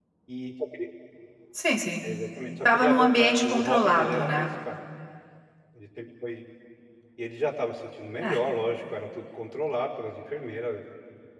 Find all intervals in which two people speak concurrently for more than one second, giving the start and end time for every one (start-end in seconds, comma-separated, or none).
2.6-4.5